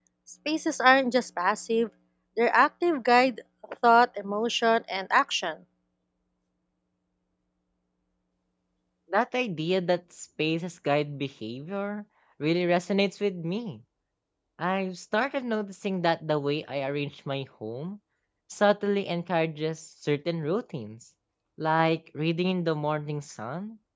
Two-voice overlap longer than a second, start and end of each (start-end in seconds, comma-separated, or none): none